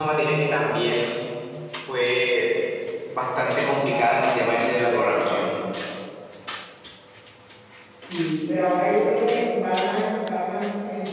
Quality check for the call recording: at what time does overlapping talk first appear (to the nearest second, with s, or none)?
none